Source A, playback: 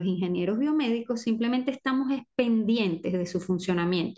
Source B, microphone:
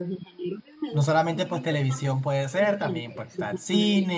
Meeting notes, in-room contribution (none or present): present